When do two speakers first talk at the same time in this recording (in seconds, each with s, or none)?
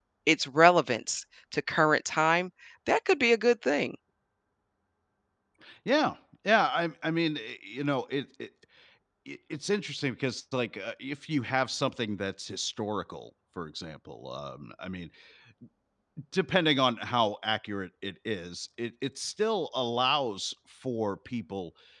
none